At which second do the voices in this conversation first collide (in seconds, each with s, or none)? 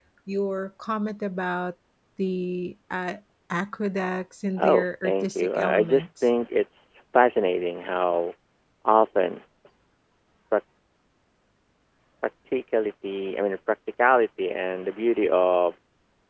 4.6 s